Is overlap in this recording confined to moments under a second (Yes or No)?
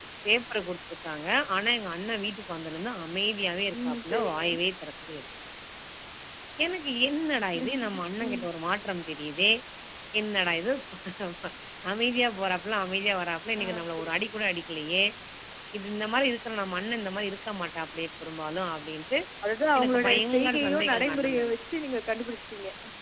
No